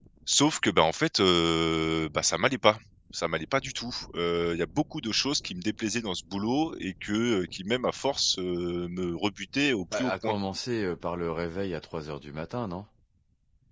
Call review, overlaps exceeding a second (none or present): none